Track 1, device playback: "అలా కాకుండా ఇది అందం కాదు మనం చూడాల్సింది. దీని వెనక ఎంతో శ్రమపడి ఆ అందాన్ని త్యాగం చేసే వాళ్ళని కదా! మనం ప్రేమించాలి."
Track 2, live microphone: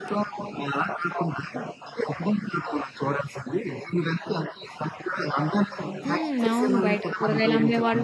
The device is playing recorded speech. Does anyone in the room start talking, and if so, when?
6.0 s

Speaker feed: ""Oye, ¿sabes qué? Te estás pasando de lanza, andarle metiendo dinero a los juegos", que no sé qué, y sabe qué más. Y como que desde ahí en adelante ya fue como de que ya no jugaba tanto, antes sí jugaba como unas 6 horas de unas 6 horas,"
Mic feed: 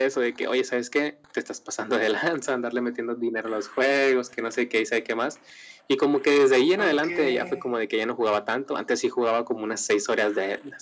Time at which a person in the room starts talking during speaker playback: 6.8 s

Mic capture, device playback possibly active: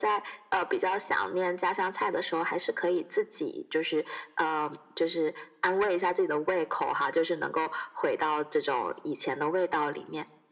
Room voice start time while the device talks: none

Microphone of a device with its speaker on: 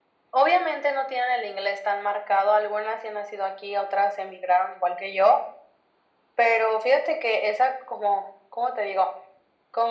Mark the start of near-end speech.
none

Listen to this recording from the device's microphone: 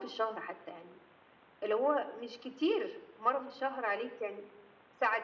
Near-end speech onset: none

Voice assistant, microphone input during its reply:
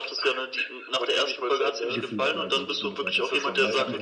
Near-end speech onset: 1.9 s

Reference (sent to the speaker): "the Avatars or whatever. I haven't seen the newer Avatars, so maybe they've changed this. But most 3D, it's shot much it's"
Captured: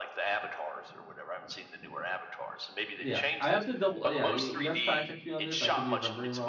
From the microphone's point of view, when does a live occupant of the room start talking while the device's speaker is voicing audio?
3.0 s

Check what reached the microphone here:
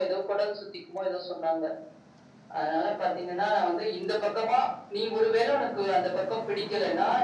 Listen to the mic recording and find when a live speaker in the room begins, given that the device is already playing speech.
none

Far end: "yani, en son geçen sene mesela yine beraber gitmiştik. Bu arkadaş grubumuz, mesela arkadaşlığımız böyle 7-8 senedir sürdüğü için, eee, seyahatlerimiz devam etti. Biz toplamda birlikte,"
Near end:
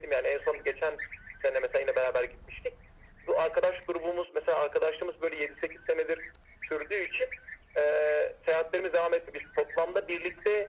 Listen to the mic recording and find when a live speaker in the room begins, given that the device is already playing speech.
none

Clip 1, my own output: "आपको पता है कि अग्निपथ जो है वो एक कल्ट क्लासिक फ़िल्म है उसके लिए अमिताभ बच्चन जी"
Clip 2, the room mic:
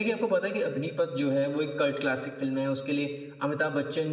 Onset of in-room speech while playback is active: none

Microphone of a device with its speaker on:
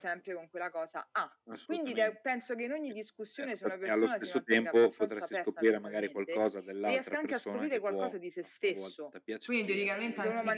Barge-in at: 9.4 s

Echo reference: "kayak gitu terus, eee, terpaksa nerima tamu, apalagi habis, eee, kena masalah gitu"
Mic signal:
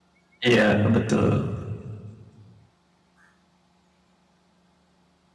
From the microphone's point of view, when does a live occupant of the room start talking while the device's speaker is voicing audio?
0.5 s

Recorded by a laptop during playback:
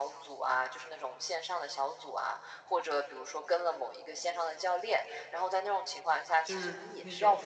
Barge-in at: 6.4 s

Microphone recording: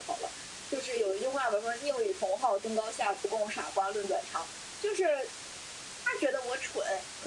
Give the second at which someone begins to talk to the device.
none

